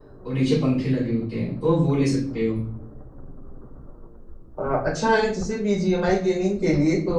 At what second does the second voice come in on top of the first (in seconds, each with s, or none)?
none